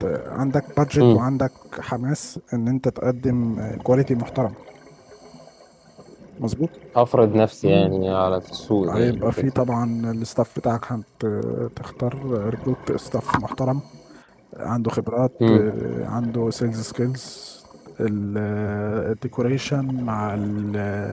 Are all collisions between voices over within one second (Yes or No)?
Yes